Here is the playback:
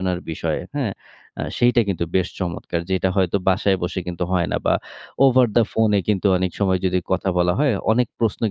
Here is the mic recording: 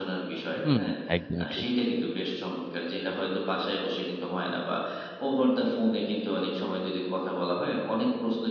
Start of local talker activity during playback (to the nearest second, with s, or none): 1 s